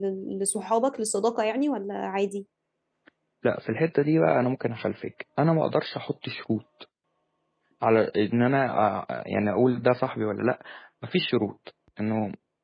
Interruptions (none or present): none